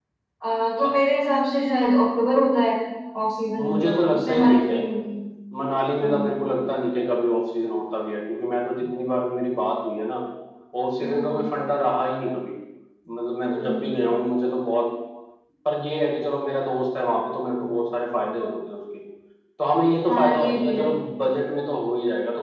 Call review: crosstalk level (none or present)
present